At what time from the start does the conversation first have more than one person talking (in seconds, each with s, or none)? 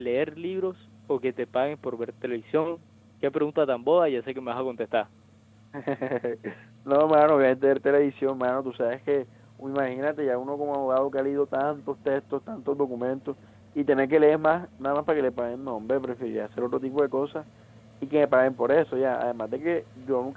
none